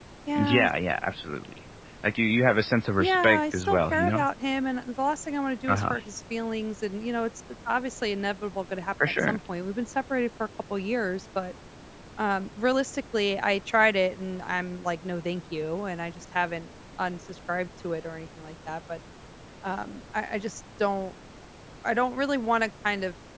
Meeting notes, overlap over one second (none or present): present